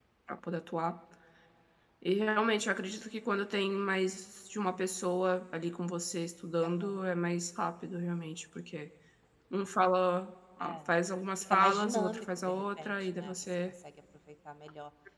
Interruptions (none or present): present